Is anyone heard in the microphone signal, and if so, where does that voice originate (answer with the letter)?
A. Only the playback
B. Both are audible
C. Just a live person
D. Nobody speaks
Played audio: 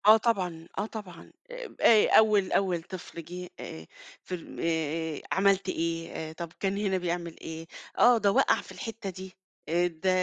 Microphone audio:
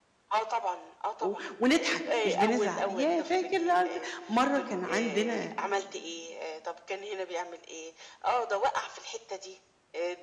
B